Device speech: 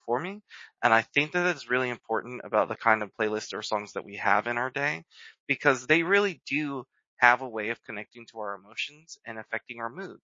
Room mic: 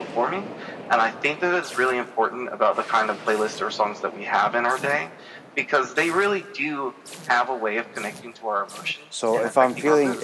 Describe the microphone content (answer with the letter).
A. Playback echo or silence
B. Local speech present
B